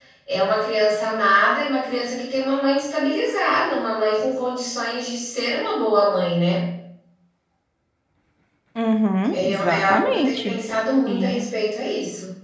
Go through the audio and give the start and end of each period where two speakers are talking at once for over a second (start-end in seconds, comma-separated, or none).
9.3-10.6